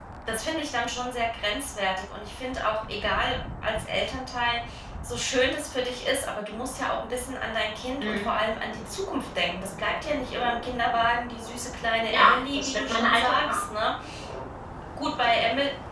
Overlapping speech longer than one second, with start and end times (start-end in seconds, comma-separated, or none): 12.1-13.6